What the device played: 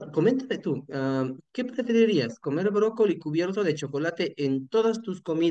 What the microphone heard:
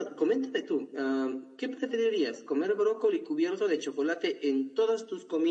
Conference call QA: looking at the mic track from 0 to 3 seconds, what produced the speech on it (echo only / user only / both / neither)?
echo only